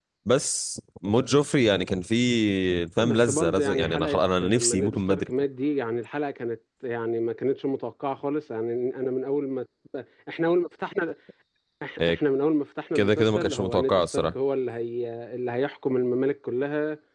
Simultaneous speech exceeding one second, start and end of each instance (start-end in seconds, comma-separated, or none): 3.0-5.3, 13.0-14.3